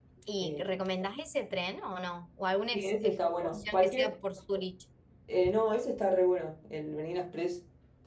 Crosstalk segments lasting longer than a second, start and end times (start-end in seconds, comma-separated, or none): 2.7-4.1